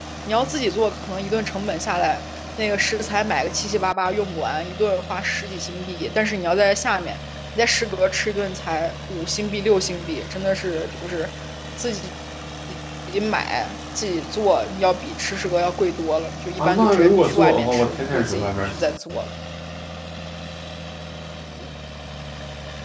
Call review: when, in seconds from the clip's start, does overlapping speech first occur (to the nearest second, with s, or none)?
17 s